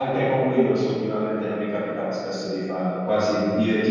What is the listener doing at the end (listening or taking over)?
listening